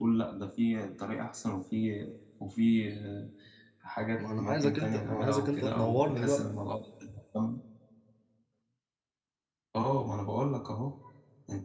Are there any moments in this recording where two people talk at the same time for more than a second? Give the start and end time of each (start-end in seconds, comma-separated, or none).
4.2-6.5